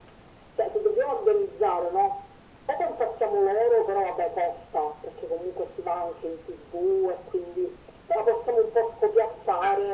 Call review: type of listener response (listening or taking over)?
listening